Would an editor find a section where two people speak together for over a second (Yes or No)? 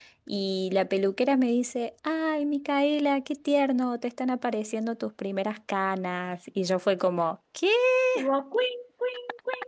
No